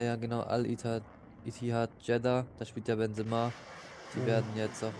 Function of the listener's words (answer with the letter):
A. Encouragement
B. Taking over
A